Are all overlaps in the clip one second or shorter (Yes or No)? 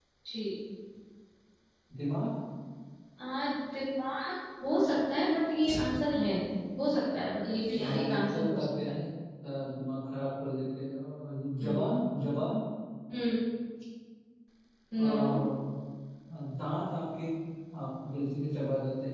No